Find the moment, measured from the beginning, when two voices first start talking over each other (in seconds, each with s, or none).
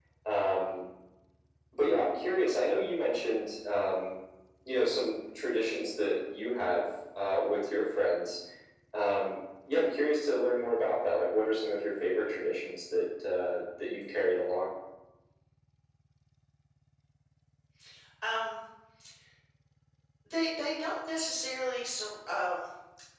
none